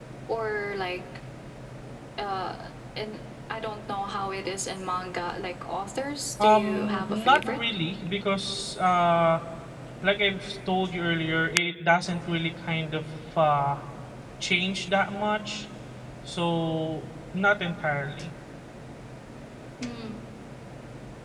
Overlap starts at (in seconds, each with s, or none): 6.4 s